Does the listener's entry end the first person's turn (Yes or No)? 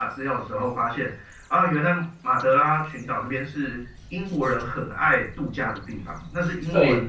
No